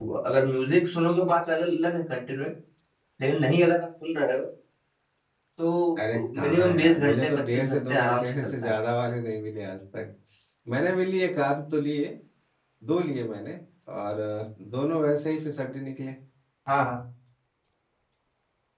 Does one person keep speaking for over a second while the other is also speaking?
Yes, from 6.1 s

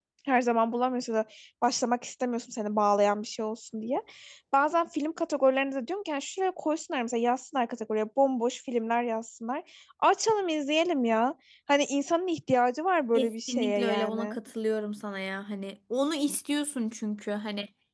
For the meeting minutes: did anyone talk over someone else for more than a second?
Yes, from 13.2 s

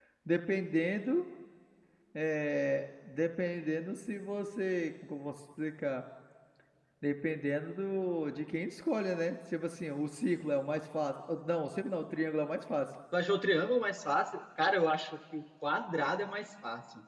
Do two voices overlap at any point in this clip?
No

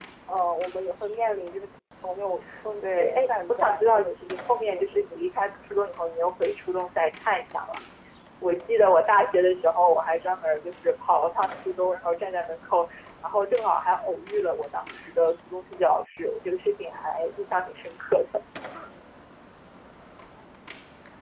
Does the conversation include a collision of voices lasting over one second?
Yes, from 2.8 s

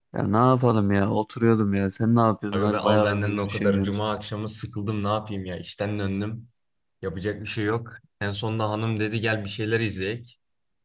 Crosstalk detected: Yes, from 2.5 s

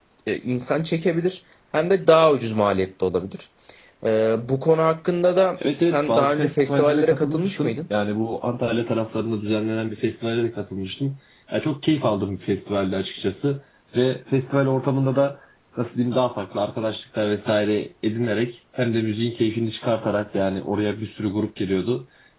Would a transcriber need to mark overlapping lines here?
Yes, from 5.6 s

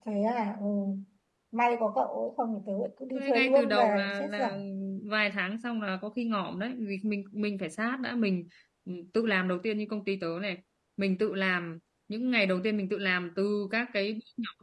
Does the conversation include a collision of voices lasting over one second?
Yes, from 3.1 s

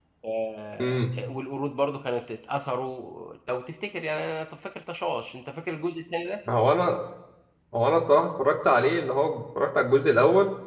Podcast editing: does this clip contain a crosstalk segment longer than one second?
No

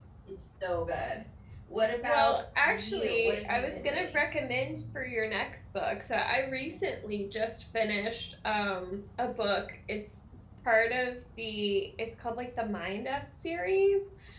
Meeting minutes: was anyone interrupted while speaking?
Yes, from 2.0 s

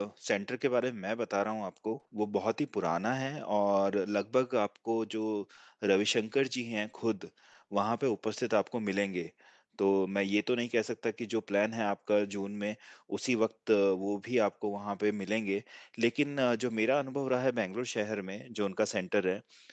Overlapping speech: No

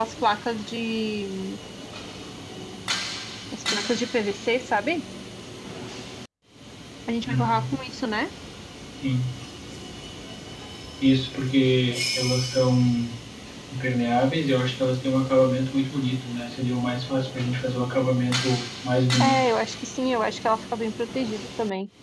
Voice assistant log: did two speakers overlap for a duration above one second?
No

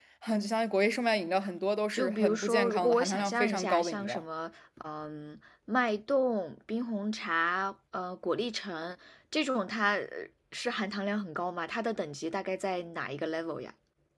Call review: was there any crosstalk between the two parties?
Yes, from 1.9 s

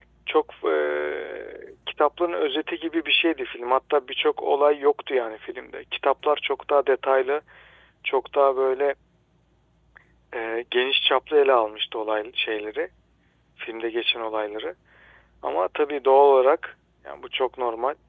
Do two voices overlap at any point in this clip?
No

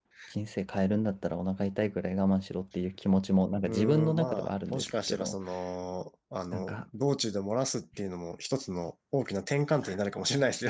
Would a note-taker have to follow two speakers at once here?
Yes, from 3.7 s

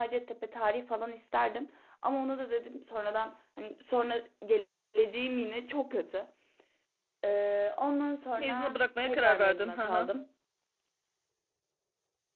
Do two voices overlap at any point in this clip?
Yes, from 8.4 s

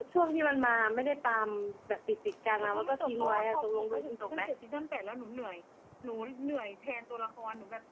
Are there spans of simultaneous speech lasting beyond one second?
Yes, from 2.6 s

